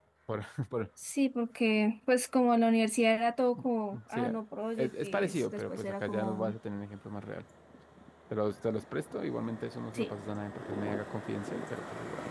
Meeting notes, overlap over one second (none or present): present